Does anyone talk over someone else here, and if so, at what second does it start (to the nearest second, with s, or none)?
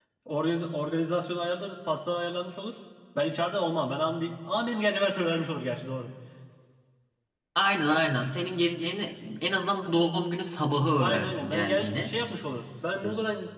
11 s